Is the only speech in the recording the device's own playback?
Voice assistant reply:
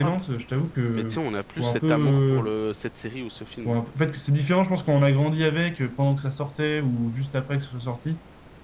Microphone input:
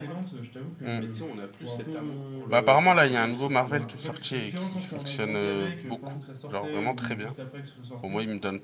No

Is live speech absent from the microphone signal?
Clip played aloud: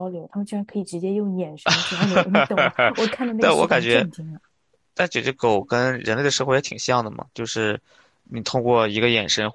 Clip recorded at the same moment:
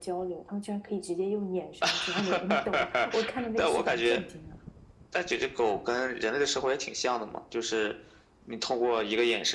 Yes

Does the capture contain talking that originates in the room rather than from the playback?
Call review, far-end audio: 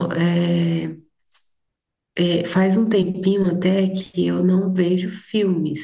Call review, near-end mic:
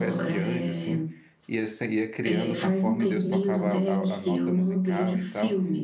Yes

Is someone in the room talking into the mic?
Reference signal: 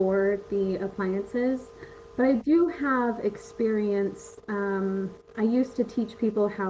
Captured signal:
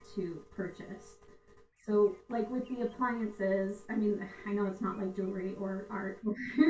Yes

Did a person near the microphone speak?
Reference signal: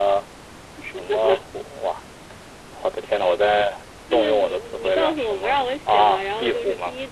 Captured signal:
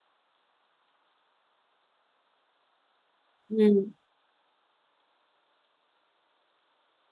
Yes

